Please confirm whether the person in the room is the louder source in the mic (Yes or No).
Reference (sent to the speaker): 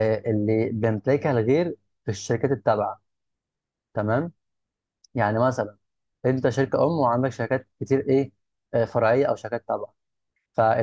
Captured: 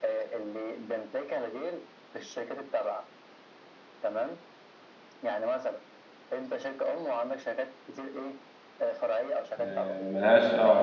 Yes